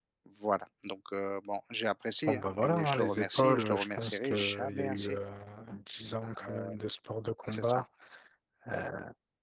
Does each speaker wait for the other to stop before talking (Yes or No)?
No